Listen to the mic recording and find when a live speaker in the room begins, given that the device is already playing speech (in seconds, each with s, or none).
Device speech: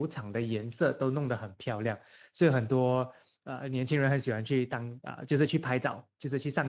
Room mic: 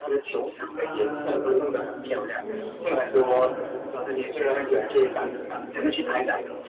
0.7 s